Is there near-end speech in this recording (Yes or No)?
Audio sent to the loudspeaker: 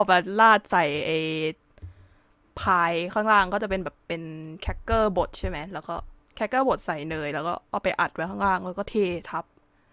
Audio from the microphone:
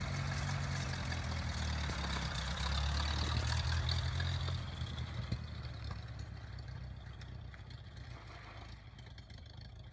No